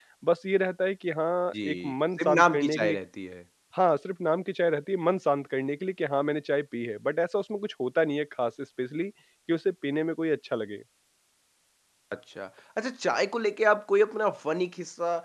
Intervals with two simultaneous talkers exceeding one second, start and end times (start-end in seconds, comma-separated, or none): 1.6-3.0